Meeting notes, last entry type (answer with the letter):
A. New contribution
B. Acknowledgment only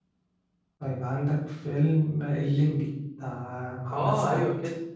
A